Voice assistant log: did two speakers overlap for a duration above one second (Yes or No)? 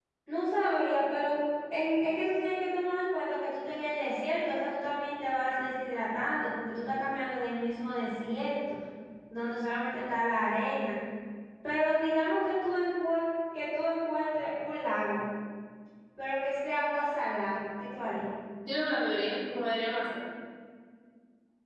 No